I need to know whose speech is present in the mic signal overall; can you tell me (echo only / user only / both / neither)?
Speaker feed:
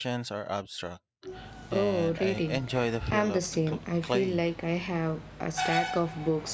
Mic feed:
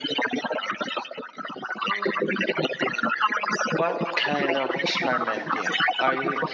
both